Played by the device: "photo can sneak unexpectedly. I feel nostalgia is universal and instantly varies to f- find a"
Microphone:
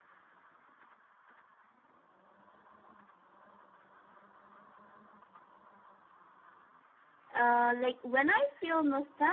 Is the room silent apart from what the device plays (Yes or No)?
No